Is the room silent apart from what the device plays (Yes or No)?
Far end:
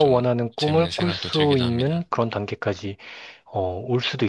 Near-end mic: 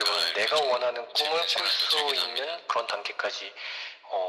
Yes